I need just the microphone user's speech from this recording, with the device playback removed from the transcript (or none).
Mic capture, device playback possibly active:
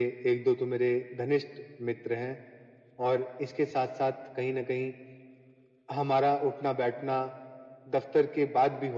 none